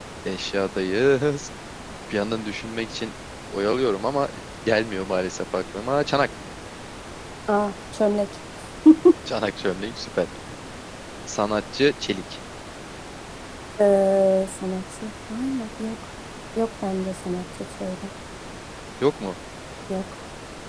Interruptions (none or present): none